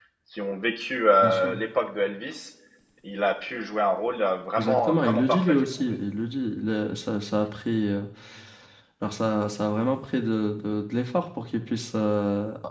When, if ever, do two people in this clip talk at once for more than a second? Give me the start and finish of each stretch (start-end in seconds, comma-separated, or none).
4.6-6.0